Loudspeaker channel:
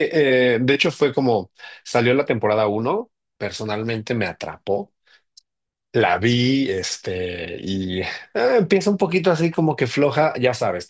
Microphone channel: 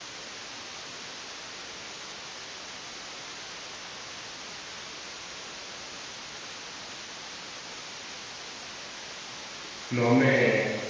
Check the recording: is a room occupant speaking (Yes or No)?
Yes